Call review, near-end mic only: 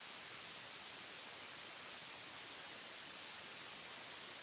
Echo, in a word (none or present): none